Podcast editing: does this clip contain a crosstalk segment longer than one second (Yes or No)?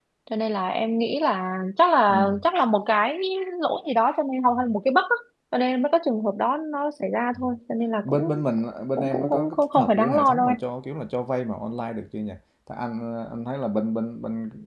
Yes